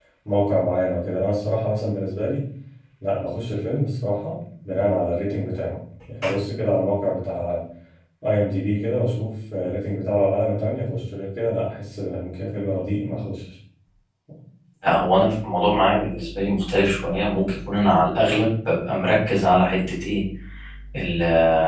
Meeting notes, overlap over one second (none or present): none